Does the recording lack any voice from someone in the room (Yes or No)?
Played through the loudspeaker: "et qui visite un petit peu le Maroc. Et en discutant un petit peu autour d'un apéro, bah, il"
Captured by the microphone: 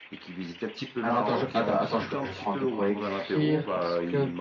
No